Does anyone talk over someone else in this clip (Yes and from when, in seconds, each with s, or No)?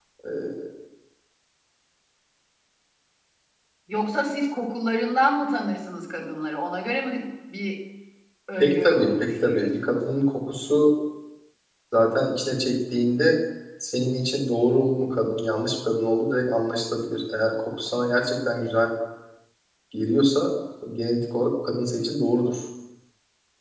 Yes, from 8.6 s